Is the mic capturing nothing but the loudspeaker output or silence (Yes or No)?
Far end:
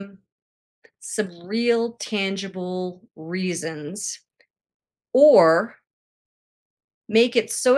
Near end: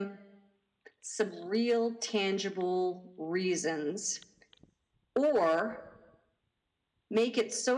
Yes